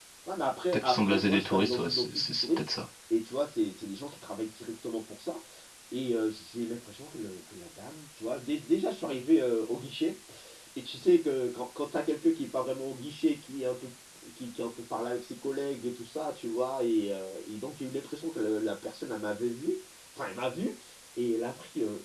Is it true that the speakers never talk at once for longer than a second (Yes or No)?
No